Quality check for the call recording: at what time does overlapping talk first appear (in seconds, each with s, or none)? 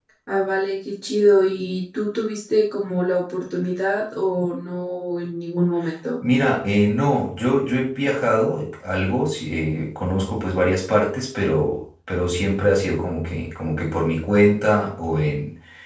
none